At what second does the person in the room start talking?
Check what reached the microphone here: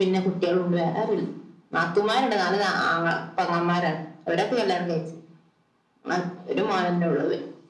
none

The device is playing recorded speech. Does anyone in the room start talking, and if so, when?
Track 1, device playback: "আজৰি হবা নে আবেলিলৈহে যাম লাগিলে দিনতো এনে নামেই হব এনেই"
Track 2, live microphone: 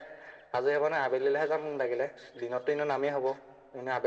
none

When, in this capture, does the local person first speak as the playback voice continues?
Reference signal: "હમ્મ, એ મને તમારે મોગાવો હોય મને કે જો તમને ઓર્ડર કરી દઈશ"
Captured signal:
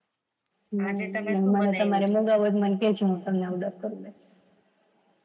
0.8 s

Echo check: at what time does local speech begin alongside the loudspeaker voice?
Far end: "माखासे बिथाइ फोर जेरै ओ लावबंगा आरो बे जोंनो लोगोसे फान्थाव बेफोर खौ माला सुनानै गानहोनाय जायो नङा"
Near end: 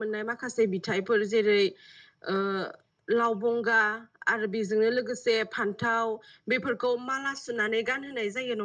none

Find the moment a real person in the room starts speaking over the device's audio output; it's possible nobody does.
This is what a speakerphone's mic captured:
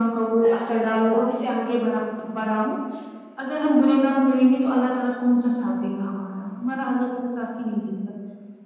none

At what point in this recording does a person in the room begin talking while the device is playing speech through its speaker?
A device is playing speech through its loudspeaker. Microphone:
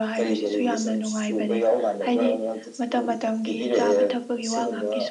none

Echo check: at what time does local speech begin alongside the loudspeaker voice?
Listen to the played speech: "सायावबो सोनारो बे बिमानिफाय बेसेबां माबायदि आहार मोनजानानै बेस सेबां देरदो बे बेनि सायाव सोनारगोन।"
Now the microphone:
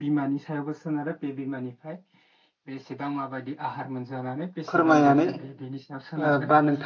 4.7 s

